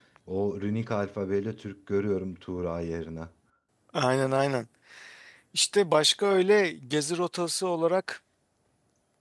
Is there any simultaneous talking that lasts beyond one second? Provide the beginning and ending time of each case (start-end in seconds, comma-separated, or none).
none